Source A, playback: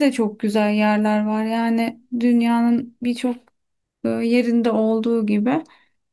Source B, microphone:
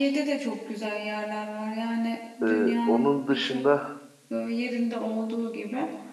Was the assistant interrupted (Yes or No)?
Yes